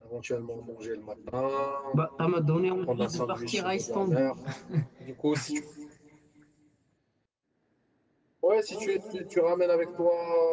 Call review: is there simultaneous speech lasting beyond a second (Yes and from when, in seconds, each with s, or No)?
Yes, from 2.9 s